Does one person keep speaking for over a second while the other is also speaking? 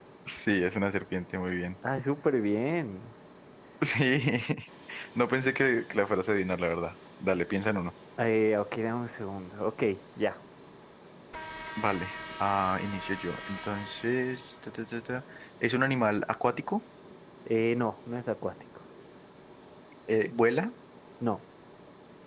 No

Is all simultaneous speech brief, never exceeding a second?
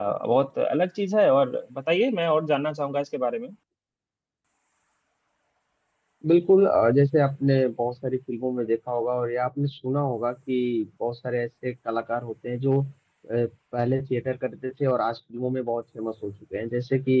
Yes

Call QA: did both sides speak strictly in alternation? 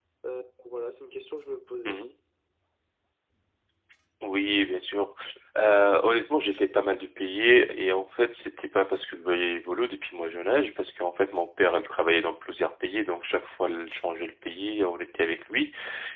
Yes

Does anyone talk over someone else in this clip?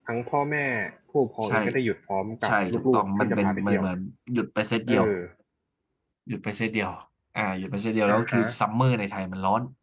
Yes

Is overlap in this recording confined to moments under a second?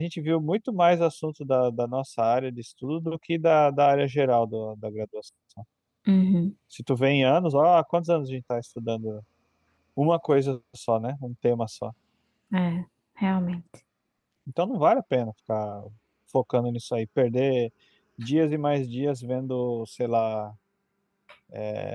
Yes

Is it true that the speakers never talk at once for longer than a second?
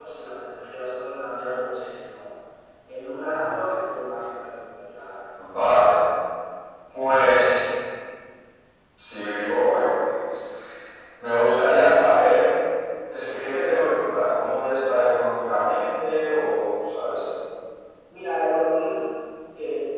Yes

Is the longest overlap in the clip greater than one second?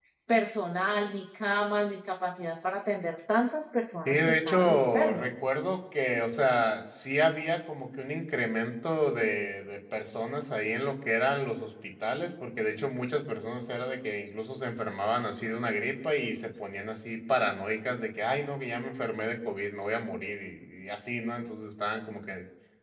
Yes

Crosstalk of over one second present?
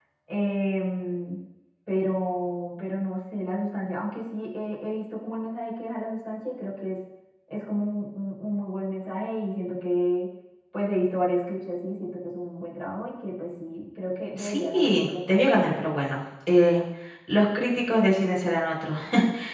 Yes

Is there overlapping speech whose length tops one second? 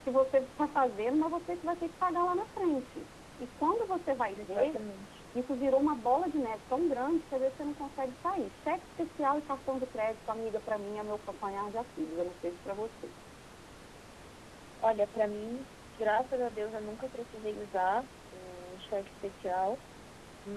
No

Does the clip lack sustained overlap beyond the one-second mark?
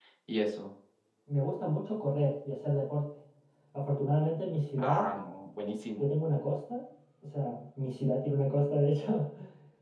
Yes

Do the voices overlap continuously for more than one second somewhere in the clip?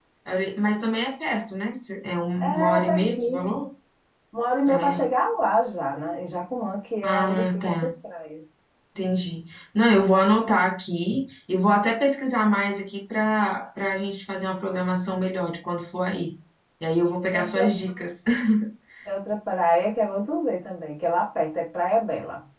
Yes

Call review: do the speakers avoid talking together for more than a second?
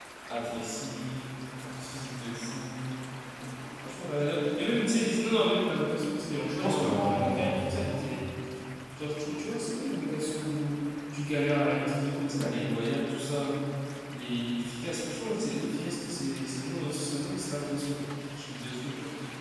No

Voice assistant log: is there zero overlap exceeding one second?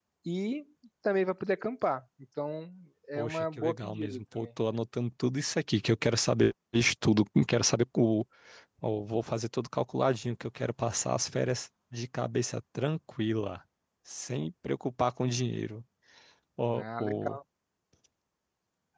No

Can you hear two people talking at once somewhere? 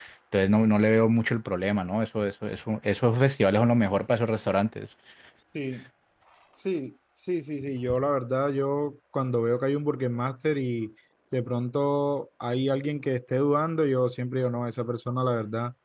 No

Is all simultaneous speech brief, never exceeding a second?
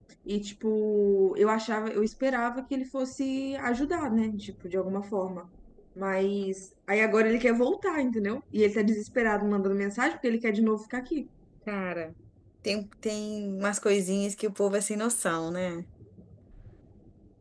Yes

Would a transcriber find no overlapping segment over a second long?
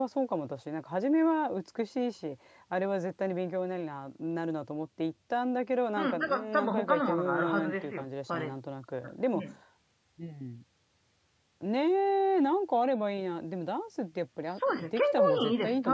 No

